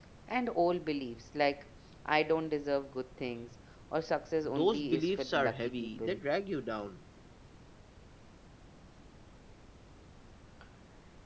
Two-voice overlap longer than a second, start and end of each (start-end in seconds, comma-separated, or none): 4.4-6.2